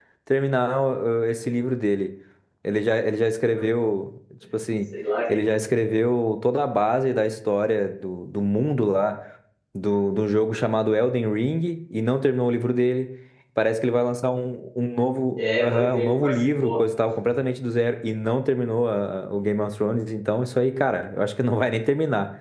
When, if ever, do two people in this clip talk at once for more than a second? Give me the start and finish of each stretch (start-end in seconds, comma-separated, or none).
15.4-16.8